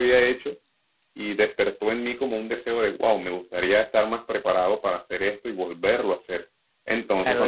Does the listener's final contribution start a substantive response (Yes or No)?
Yes